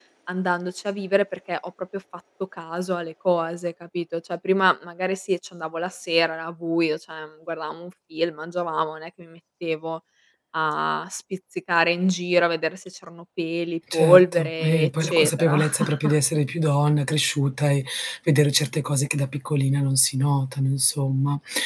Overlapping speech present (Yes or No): Yes